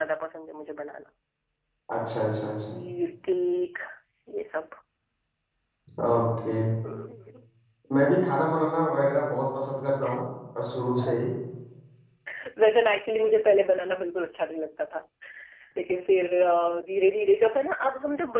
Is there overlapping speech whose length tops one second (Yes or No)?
No